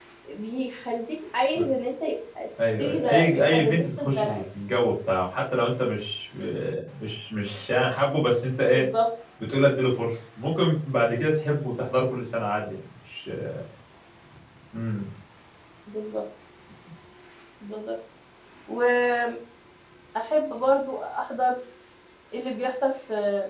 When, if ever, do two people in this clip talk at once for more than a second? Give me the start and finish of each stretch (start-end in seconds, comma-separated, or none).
2.6-4.4